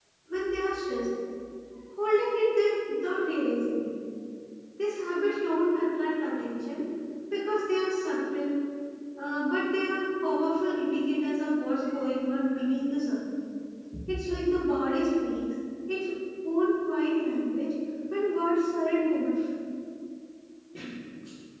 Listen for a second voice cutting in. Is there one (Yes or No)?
No